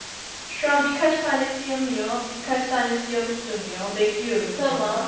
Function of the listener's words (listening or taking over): taking over